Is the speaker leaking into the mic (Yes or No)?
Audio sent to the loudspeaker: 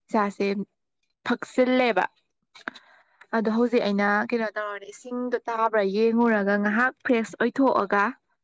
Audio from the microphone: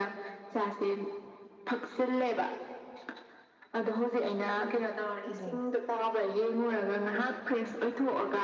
Yes